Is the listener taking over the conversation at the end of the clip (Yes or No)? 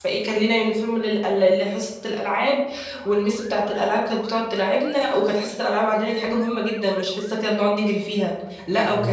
No